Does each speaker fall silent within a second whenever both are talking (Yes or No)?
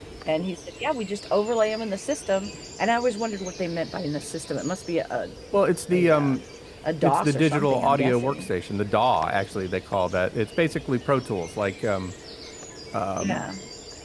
No